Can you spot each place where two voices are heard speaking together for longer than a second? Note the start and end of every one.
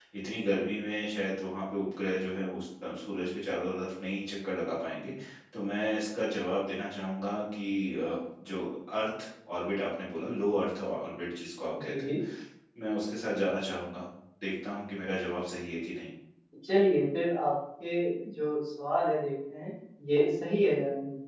none

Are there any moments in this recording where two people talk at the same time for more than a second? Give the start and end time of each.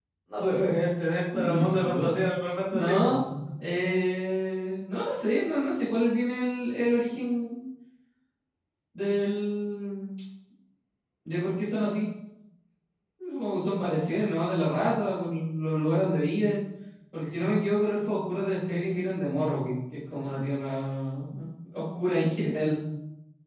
1.3-3.2

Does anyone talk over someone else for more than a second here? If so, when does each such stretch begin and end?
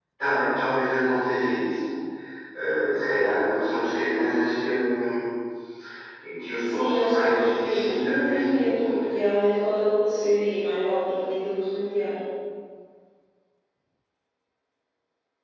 6.6-9.0

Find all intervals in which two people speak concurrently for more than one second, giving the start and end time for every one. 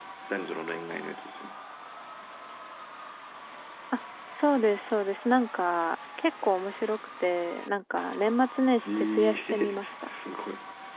8.9-10.1

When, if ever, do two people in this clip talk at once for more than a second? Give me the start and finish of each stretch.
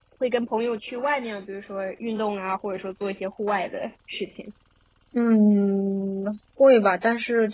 none

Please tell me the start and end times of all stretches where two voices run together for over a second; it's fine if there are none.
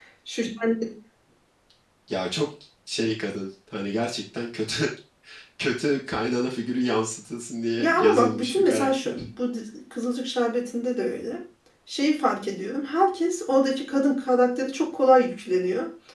7.8-9.2

